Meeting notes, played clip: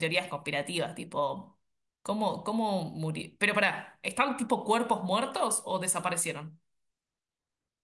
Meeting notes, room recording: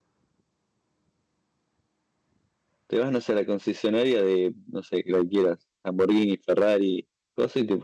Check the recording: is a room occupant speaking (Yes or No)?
Yes